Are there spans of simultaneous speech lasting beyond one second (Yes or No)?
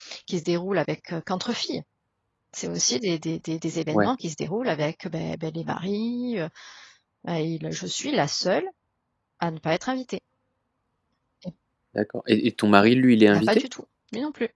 No